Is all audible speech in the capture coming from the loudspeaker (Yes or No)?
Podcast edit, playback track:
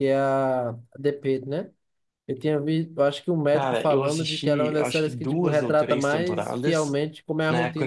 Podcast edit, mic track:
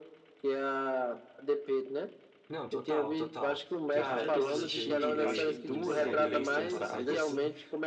No